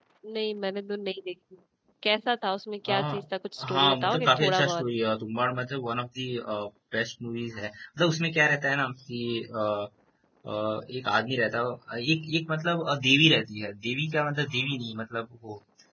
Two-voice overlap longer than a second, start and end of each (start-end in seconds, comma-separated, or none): 3.6-4.8